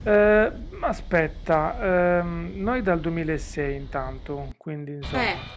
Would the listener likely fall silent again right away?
No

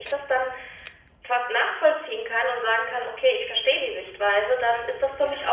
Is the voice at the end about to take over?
No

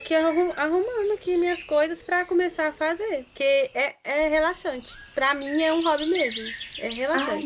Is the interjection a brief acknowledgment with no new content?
No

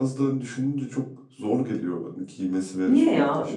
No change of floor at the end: No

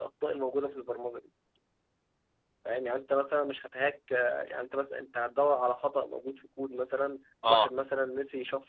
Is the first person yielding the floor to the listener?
No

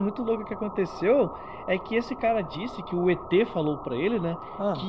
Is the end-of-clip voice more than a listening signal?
No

